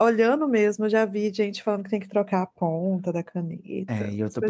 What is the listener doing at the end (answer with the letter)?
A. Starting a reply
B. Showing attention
A